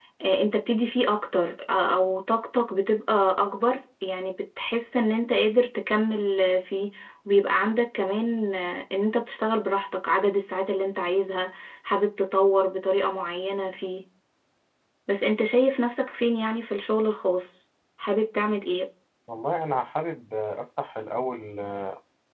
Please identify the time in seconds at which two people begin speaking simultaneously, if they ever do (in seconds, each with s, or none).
none